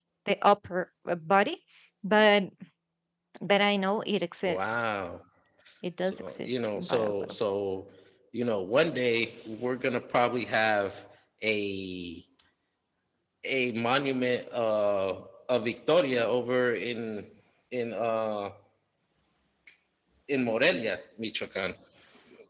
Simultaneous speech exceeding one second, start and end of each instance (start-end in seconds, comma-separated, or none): 6.0-7.3